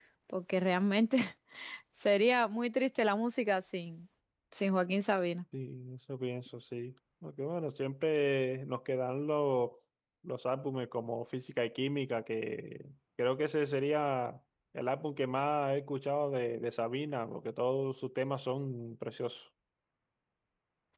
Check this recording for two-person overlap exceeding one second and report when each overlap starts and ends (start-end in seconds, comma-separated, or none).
none